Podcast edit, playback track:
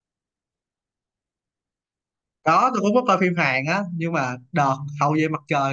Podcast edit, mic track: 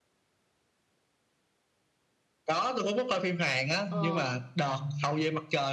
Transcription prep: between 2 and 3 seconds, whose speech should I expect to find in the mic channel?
echo only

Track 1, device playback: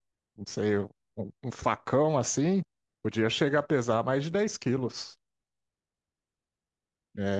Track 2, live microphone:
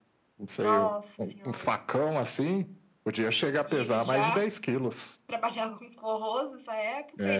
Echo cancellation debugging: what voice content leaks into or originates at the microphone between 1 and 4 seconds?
both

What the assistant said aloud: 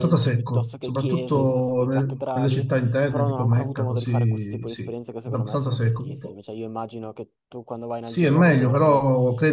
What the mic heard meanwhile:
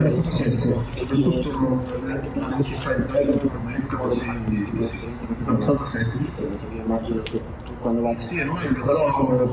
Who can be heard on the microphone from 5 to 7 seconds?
echo only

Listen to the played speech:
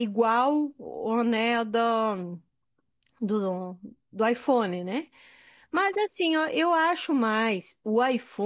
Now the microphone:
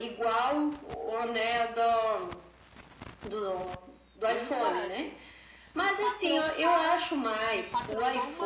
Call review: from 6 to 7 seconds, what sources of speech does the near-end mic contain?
both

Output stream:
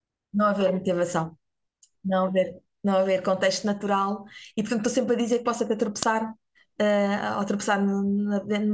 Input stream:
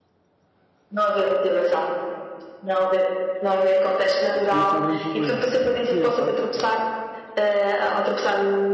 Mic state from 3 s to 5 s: both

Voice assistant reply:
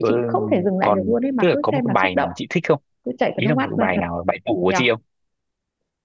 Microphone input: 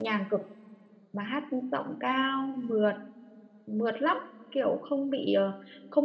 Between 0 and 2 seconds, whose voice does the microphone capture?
user only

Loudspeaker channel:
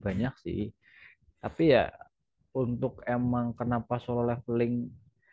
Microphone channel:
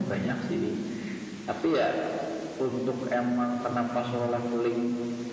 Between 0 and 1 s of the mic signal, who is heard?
echo only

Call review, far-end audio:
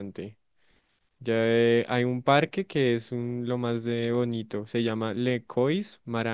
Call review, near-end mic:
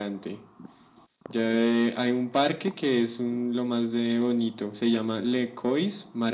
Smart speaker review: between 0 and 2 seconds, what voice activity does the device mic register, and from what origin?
echo only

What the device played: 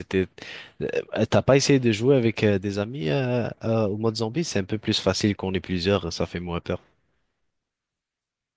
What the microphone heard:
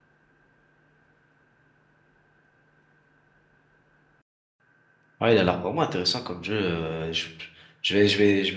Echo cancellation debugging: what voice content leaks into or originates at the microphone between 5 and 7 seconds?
user only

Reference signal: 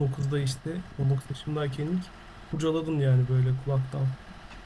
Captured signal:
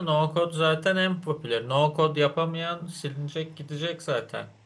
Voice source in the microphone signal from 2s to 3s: user only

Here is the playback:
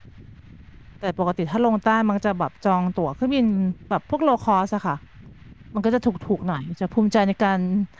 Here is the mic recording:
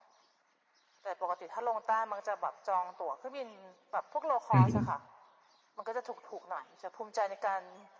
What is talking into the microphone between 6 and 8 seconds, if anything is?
echo only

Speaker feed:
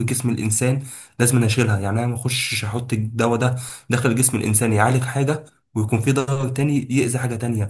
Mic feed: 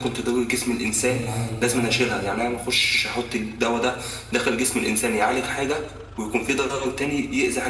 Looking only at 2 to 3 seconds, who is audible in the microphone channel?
both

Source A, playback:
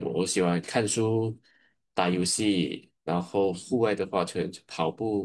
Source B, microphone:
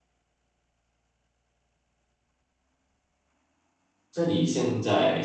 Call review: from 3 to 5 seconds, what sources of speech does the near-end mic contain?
user only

